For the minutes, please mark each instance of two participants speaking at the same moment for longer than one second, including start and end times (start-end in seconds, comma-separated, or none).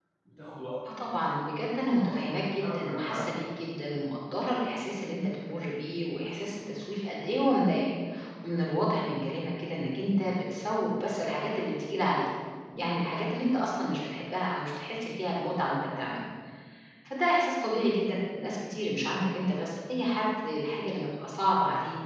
2.1-3.5